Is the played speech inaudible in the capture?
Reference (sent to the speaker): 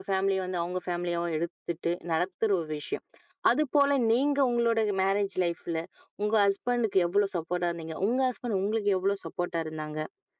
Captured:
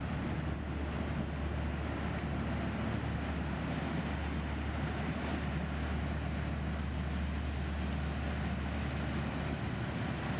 Yes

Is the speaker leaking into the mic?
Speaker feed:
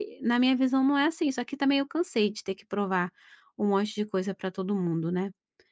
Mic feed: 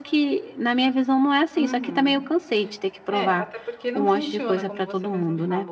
Yes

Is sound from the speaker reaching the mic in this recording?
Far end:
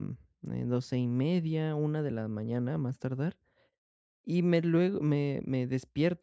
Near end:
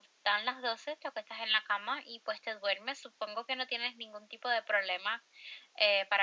No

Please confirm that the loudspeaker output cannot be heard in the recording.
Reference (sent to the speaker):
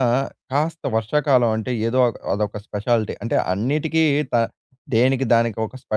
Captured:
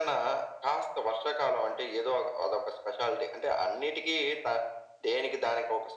No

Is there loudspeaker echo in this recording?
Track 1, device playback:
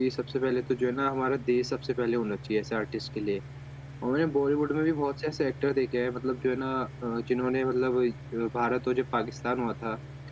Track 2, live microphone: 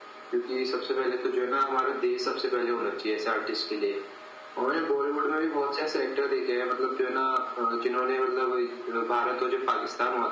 Yes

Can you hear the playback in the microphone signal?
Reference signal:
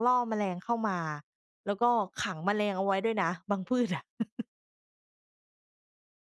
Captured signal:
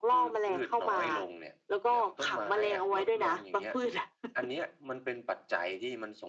Yes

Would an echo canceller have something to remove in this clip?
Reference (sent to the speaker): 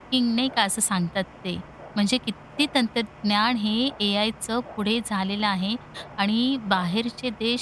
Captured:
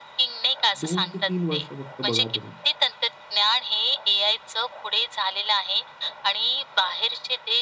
Yes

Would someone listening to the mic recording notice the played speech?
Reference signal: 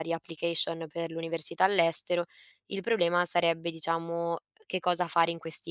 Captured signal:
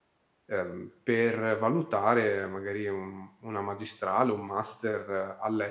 No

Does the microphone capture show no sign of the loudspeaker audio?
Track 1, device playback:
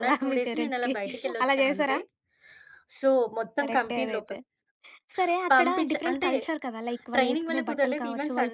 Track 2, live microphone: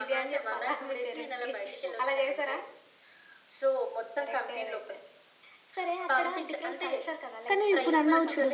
No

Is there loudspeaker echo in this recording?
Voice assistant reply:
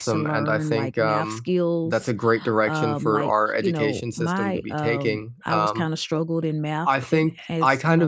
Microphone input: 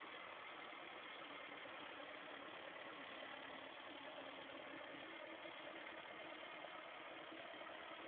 No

